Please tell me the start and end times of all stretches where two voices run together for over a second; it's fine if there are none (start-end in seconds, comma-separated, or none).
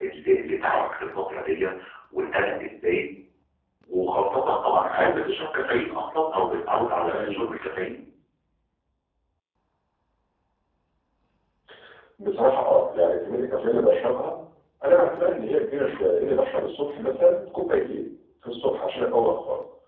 none